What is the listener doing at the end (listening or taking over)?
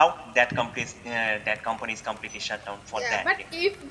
taking over